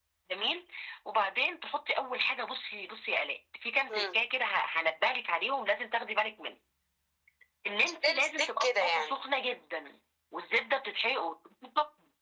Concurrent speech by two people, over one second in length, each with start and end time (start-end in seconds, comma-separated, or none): 7.8-9.1